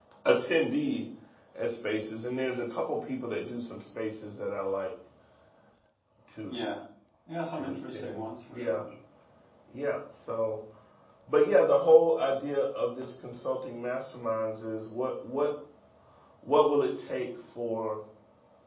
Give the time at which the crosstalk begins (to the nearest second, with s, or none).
8 s